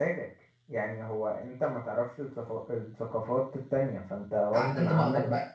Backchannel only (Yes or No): No